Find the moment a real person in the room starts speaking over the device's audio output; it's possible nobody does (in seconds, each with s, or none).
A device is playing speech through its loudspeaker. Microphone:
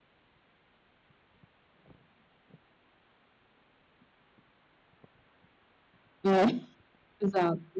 6.2 s